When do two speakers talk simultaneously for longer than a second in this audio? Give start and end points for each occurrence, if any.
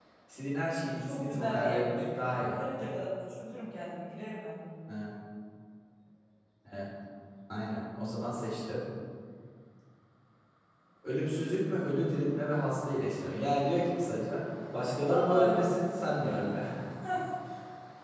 1.1-2.6, 15.1-16.6

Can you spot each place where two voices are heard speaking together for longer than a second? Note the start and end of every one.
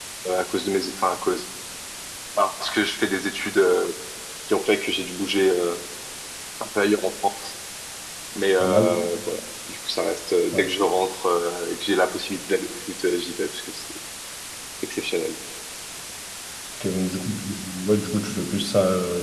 none

